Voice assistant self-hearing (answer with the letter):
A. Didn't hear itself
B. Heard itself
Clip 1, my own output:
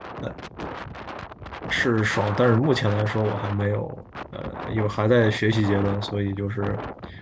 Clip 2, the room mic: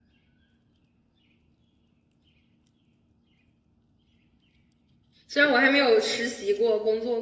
A